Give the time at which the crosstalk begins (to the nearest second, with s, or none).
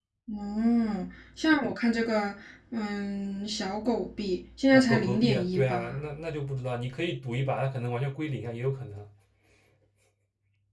5 s